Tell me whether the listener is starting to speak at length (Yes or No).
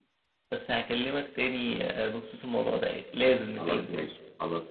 Yes